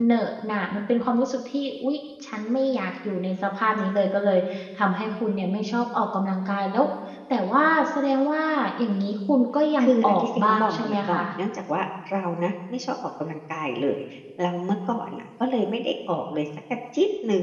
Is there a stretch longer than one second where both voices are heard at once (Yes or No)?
Yes